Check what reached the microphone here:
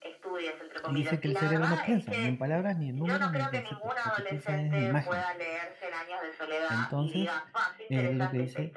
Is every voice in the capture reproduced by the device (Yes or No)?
No